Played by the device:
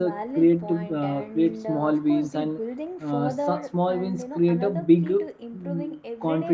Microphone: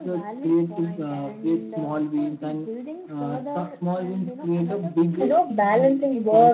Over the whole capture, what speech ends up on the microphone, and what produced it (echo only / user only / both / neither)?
both